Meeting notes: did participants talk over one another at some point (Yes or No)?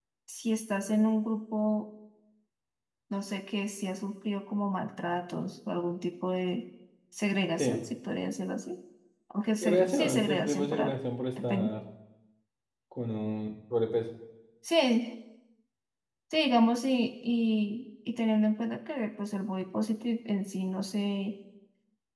Yes